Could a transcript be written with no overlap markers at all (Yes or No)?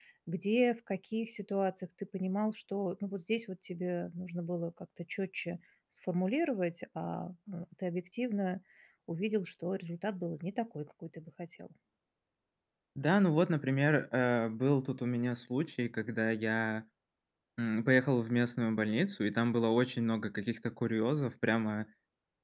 Yes